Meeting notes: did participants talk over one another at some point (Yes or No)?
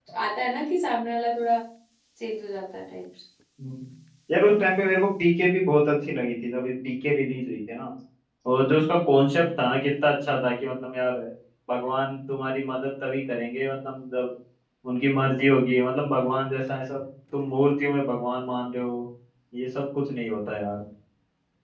No